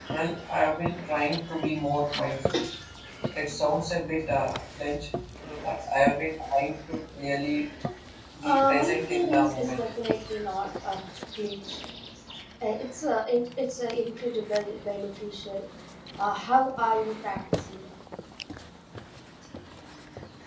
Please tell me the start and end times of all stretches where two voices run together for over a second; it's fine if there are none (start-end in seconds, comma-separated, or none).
8.4-9.8